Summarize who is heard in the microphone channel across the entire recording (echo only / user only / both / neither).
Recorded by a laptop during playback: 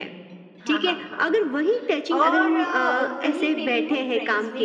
both